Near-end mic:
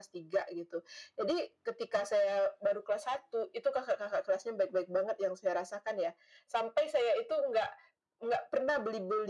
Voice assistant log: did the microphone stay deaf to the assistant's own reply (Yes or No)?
No